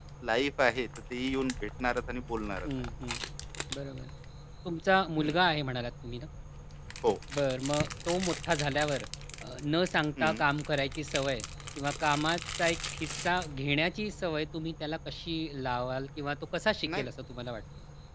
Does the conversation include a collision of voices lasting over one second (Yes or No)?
No